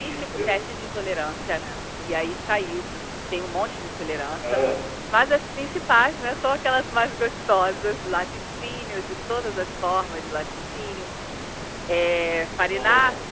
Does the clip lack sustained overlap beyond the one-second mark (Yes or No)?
Yes